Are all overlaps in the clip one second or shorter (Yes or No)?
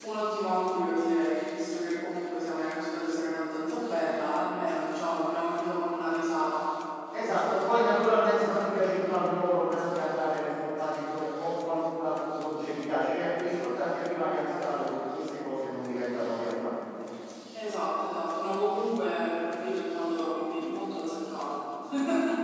Yes